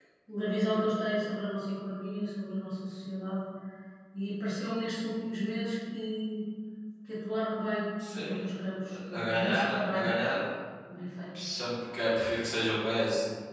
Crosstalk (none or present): present